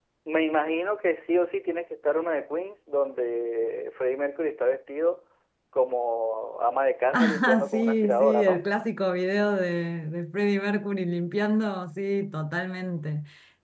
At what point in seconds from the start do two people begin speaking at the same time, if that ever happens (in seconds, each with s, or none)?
7.1 s